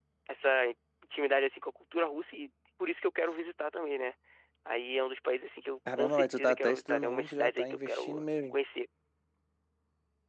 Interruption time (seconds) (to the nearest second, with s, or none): 6 s